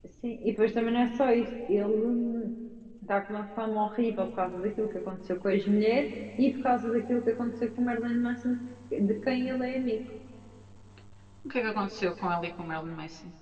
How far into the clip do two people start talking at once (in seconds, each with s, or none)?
none